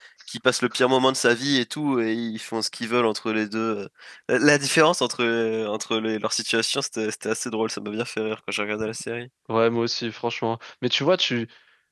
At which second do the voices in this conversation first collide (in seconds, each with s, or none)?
none